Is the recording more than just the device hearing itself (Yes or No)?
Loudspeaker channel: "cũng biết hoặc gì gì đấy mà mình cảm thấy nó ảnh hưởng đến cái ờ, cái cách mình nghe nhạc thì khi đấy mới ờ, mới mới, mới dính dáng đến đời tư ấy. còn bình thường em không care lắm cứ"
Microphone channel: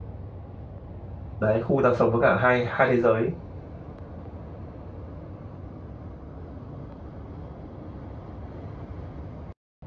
Yes